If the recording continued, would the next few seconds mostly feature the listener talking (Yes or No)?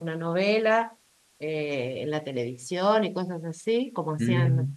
Yes